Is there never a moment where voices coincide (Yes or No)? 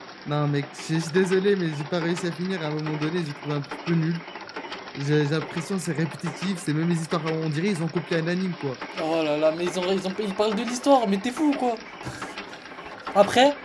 Yes